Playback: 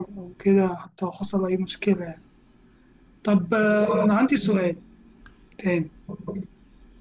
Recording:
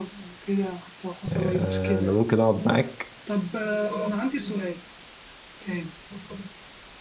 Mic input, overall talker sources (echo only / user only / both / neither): both